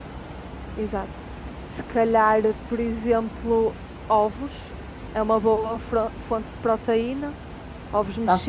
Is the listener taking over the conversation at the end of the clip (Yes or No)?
Yes